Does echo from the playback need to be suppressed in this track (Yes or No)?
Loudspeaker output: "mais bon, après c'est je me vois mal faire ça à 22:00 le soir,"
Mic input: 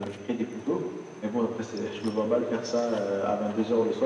Yes